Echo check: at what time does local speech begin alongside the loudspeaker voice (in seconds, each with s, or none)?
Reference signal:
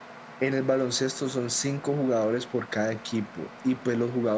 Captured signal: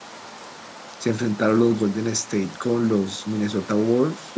1.0 s